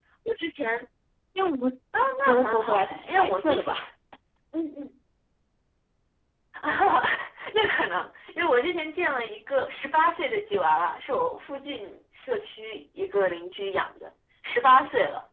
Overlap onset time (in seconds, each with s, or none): 2.3 s